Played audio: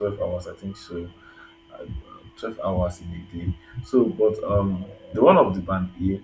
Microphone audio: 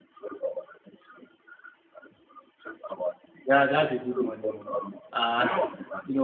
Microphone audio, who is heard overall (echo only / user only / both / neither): both